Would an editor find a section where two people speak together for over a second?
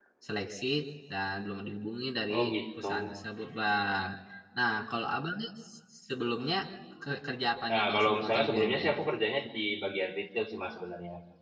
Yes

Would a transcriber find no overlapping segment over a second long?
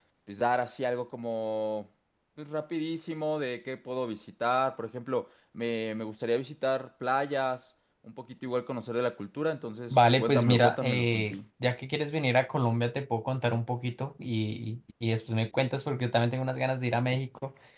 No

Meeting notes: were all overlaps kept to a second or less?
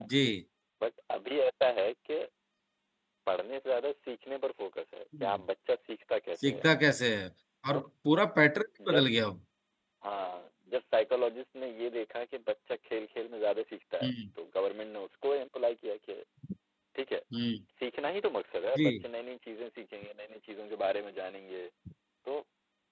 Yes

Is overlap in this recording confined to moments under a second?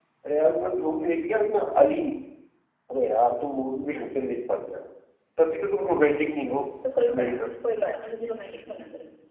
Yes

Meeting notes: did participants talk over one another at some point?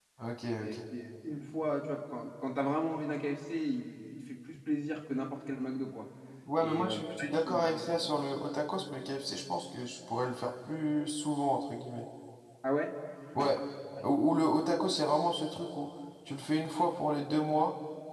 Yes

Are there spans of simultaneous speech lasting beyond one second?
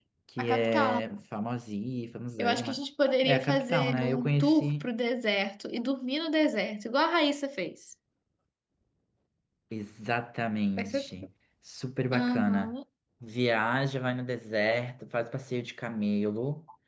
Yes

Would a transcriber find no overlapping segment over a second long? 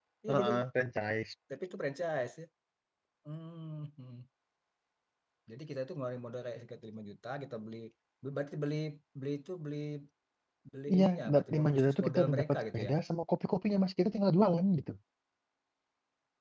No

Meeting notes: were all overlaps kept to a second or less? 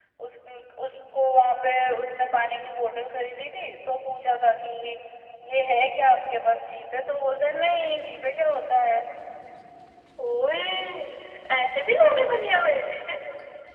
Yes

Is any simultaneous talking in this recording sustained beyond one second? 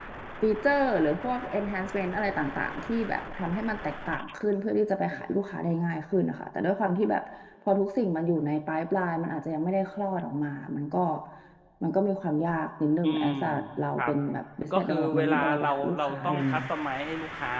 Yes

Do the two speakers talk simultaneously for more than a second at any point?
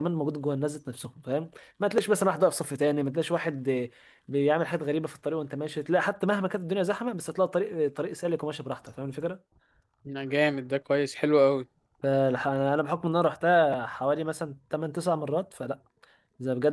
No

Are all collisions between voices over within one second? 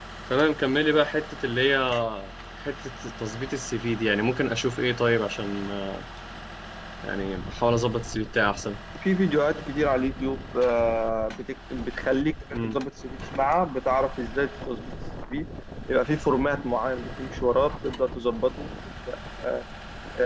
Yes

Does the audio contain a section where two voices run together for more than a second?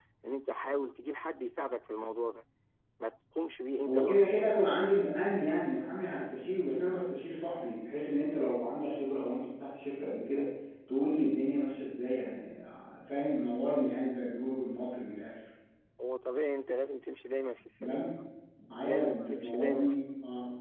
Yes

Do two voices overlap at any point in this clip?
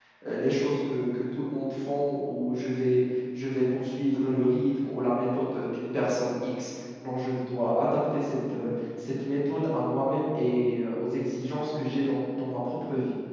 No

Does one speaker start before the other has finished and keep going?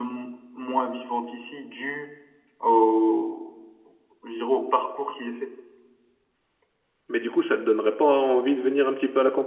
No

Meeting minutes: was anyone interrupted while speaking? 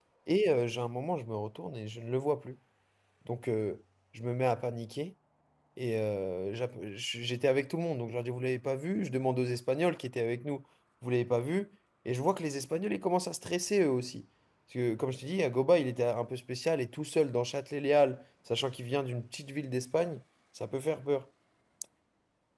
No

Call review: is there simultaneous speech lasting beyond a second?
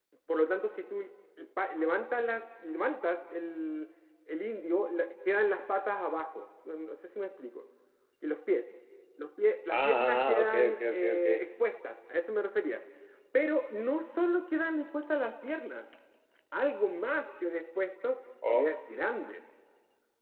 Yes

